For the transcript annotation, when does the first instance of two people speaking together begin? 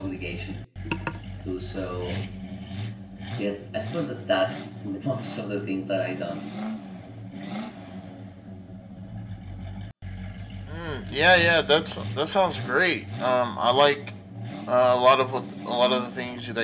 none

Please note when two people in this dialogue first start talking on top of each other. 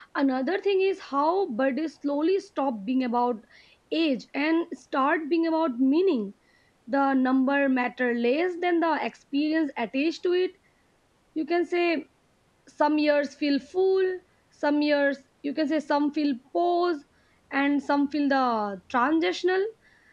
none

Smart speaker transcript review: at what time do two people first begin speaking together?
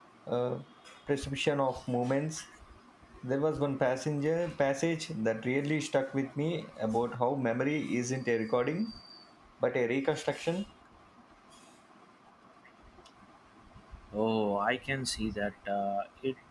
none

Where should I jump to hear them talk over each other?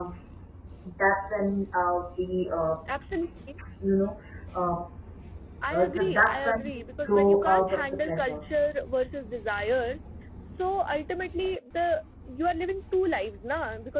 5.7 s

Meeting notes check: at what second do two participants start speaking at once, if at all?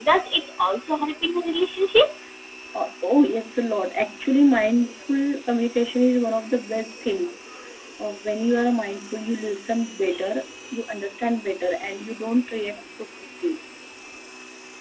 none

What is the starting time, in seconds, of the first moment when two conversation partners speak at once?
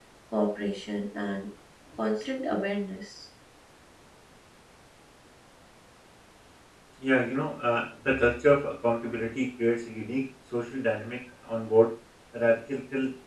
none

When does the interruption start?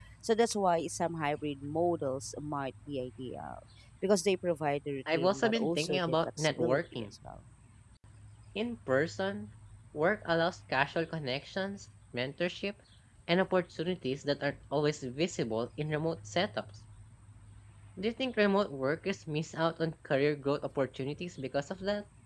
5.1 s

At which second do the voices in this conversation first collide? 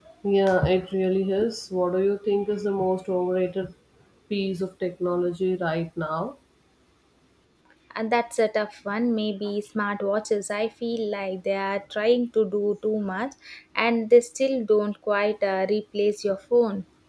none

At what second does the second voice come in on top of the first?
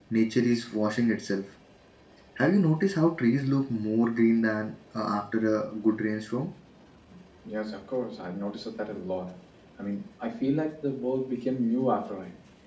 none

